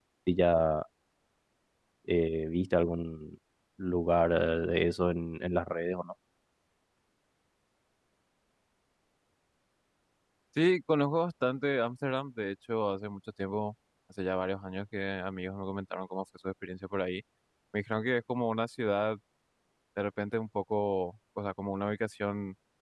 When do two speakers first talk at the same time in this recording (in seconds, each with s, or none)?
none